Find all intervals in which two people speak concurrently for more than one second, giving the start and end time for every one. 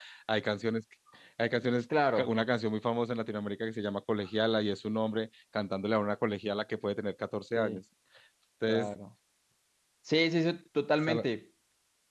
none

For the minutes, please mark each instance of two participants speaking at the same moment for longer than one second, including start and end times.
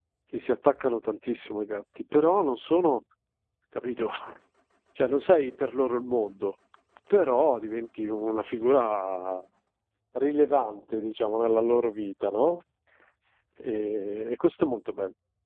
none

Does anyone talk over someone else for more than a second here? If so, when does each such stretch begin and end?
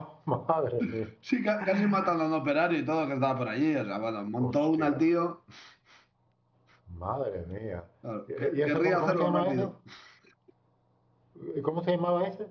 8.4-9.7

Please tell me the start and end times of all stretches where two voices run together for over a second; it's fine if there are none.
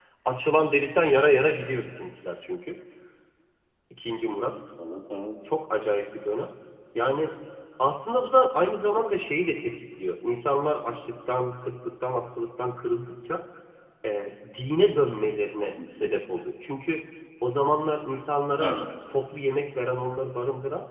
none

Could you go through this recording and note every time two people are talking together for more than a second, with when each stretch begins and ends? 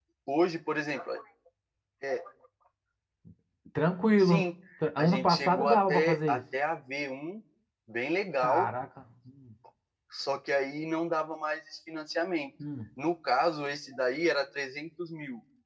5.0-6.4

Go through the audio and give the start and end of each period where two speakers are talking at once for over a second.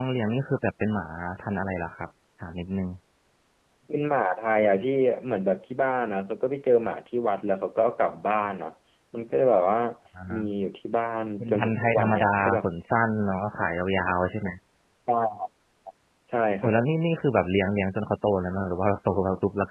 11.4-12.6

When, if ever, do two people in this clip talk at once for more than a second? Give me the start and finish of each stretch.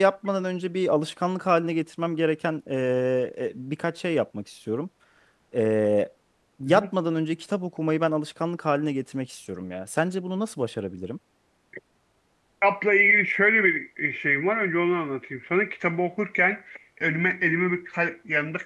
none

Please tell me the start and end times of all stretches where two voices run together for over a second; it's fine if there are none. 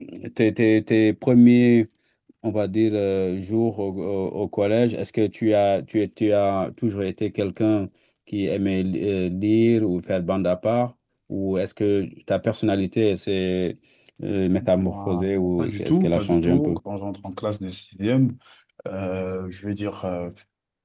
14.8-16.8

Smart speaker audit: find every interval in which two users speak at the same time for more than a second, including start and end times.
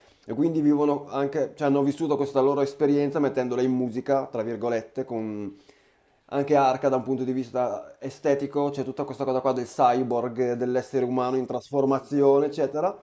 none

